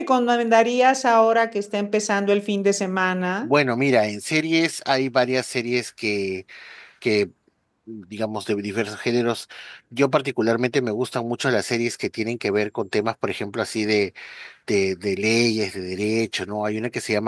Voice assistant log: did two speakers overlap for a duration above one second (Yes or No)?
No